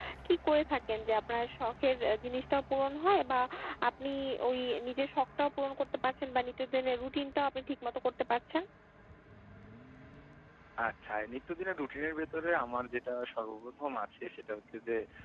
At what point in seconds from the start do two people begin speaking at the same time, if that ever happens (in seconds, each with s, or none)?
none